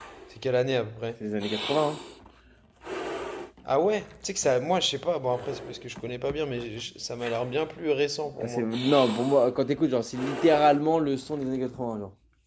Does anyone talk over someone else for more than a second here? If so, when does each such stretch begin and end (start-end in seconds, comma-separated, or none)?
none